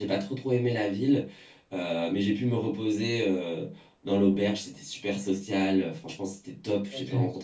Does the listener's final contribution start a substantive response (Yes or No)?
No